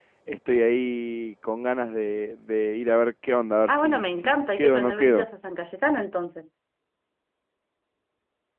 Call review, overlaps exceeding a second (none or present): present